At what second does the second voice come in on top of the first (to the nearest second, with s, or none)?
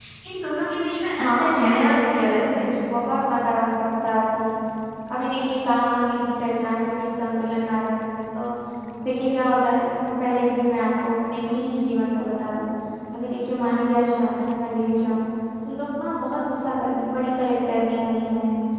1 s